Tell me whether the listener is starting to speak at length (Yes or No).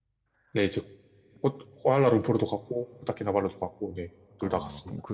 Yes